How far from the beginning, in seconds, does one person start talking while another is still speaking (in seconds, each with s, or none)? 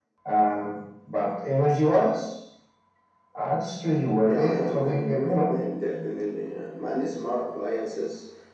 4.3 s